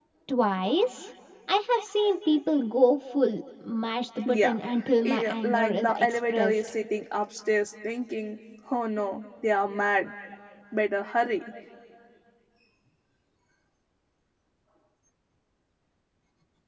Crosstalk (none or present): present